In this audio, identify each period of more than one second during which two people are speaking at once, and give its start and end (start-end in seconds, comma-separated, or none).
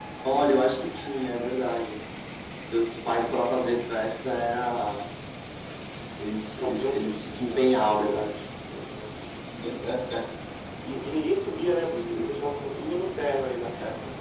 6.6-8.2